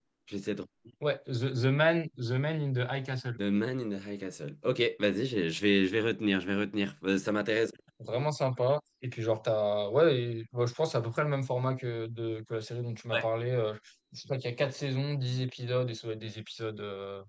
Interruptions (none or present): none